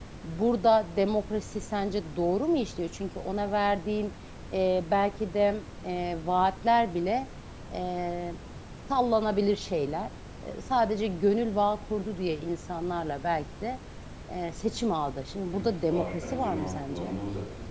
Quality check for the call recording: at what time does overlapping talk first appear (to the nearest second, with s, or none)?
16 s